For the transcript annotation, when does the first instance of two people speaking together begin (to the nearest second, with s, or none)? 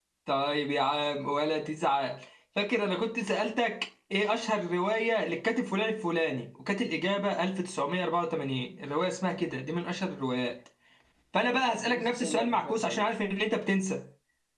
11 s